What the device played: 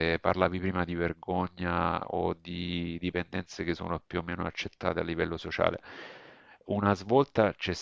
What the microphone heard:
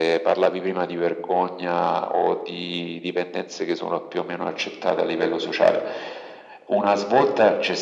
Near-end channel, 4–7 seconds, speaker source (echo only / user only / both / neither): echo only